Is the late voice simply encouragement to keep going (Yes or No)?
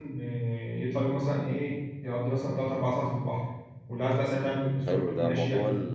No